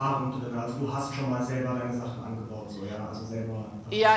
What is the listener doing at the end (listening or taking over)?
taking over